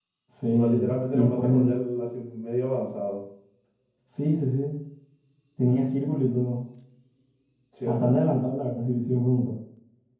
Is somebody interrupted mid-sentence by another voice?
Yes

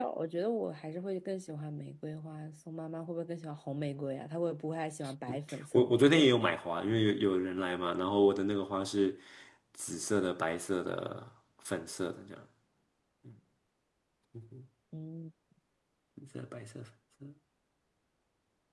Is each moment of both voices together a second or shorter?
Yes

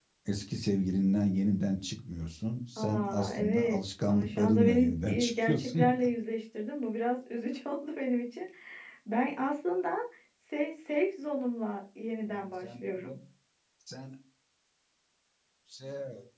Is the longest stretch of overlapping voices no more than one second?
No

